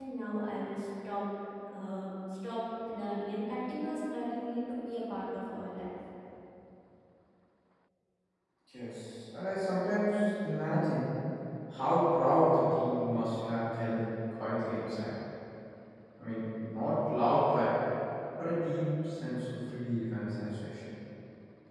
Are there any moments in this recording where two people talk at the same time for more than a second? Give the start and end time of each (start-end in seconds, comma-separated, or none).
none